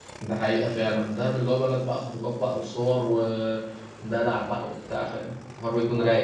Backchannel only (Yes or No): No